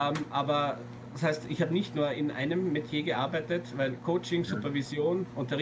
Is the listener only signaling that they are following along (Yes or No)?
Yes